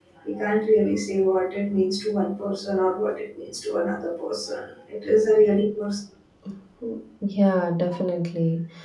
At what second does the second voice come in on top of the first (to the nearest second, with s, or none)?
none